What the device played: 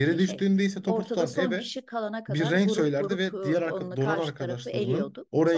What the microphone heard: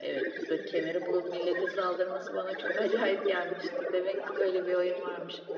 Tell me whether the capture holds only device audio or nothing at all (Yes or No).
No